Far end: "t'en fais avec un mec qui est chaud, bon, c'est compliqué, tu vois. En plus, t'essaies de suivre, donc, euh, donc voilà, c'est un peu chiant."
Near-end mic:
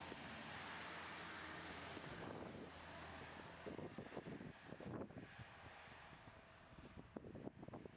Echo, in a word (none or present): none